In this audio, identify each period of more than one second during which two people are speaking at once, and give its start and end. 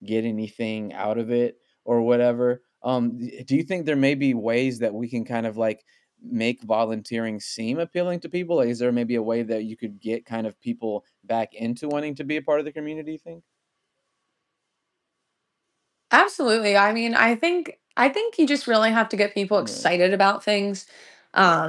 none

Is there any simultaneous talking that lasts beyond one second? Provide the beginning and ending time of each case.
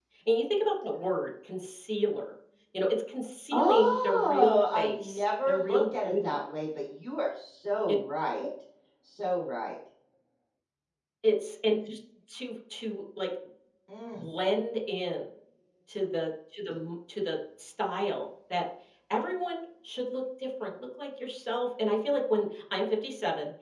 3.5-6.4

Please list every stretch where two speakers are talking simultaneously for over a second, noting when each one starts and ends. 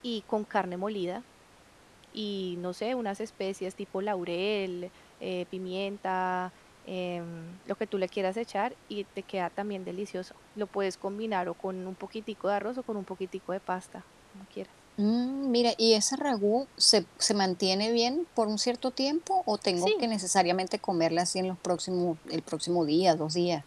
none

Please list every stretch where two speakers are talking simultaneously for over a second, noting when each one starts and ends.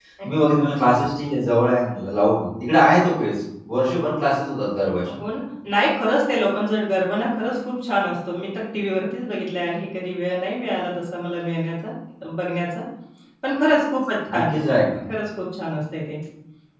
none

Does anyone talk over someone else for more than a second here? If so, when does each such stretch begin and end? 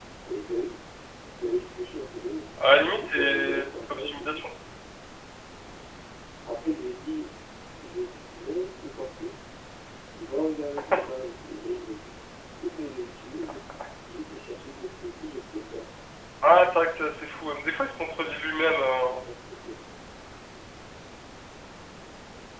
3.0-4.4

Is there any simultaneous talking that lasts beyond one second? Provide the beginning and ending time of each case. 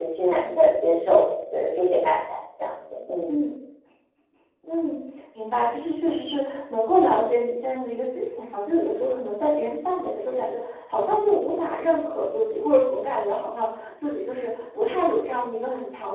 none

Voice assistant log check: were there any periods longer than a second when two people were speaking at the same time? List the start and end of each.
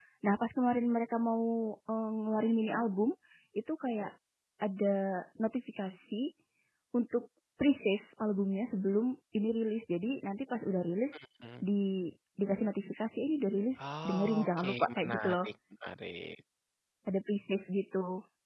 13.8-15.3

